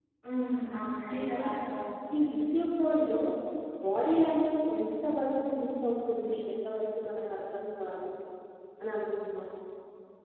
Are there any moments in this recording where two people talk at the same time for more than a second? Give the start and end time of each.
none

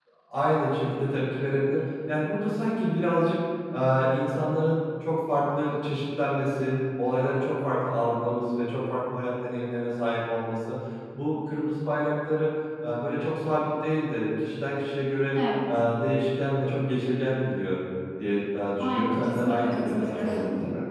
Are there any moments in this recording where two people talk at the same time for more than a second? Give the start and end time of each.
18.8-20.3

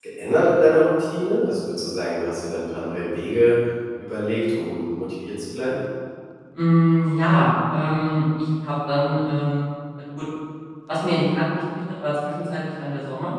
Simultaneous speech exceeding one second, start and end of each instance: none

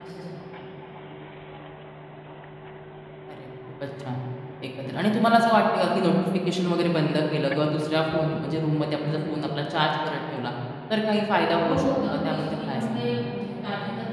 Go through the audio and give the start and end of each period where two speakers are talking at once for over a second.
11.7-13.2

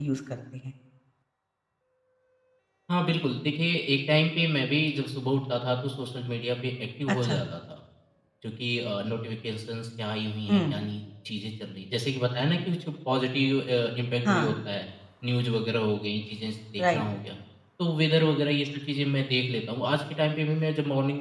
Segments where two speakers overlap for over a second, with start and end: none

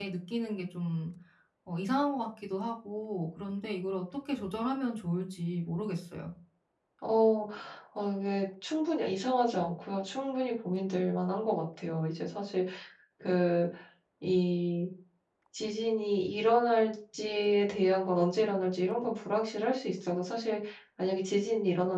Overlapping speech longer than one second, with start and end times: none

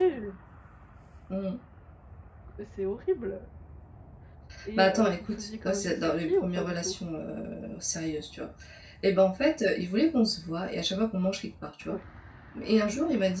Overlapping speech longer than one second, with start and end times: 4.8-7.0

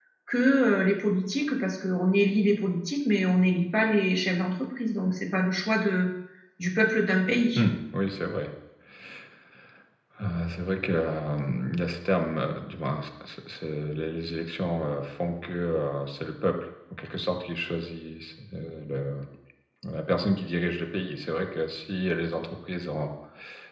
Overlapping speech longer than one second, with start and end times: none

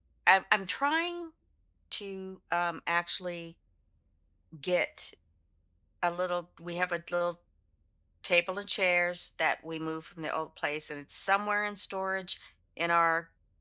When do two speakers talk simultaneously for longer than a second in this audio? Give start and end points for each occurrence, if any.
none

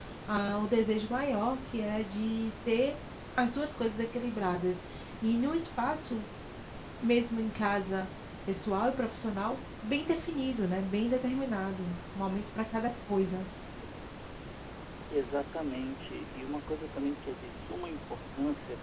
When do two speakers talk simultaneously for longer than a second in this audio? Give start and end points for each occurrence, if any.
none

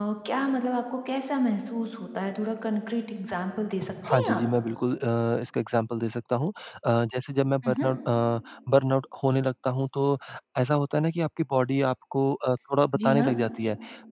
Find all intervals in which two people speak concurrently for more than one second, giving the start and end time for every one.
none

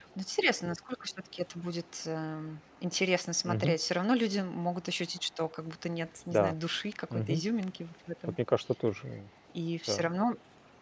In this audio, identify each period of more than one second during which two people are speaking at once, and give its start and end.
none

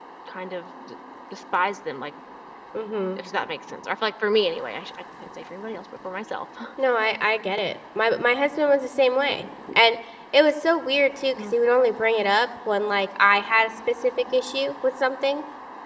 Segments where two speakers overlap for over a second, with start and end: none

